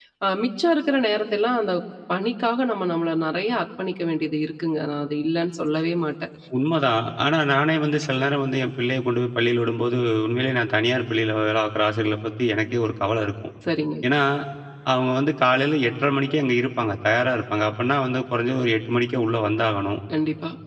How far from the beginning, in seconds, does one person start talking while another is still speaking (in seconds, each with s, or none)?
none